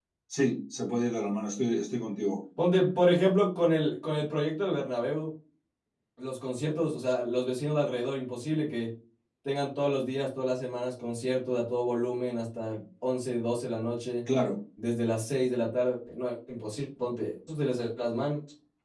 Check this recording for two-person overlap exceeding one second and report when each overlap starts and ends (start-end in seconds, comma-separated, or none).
none